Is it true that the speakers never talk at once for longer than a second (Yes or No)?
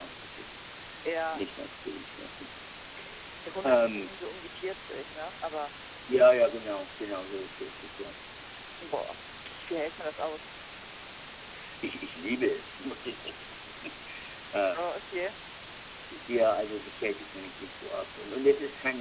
Yes